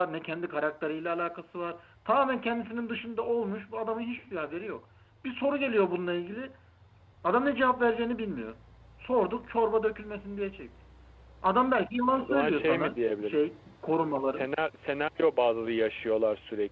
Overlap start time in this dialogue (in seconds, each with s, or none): 12.1 s